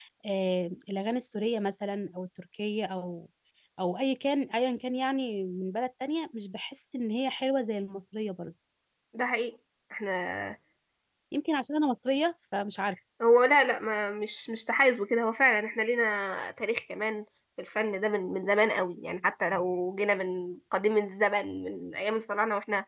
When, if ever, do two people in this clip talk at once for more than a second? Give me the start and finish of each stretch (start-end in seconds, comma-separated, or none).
none